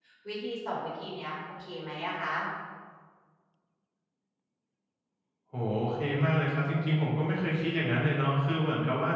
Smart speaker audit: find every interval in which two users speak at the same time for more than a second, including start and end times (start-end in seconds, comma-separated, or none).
none